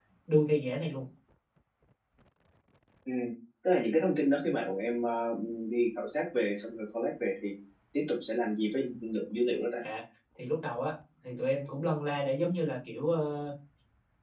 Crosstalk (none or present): none